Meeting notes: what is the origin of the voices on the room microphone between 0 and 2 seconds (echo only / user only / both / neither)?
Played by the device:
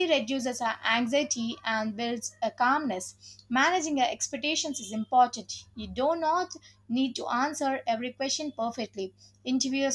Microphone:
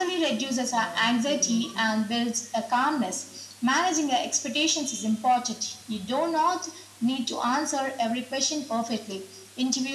both